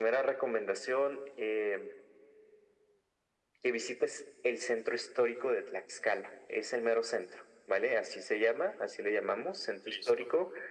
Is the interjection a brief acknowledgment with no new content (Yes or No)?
Yes